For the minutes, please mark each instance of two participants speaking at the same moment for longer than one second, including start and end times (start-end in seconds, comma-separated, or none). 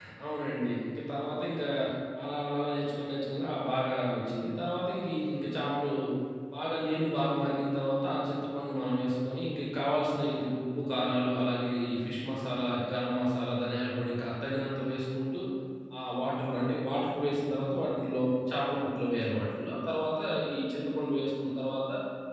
none